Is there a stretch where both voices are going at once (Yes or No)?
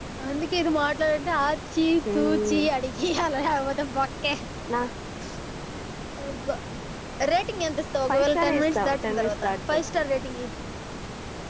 Yes